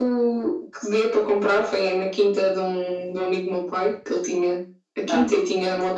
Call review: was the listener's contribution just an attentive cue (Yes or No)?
Yes